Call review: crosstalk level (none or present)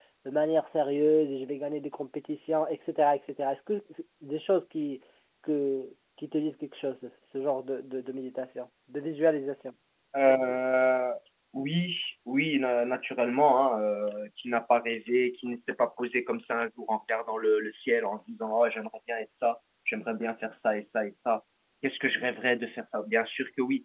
none